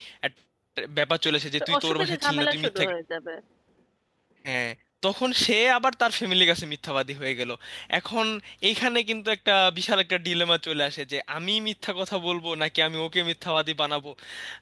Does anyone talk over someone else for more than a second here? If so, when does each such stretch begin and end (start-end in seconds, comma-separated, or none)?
1.6-2.8